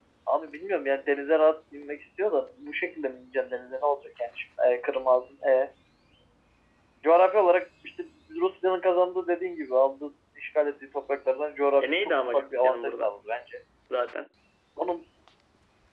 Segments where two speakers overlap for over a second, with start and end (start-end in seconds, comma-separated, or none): 11.8-13.1